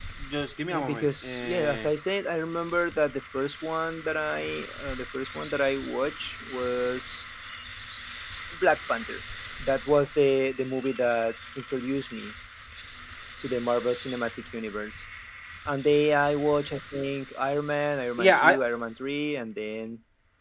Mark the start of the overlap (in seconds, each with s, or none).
0.7 s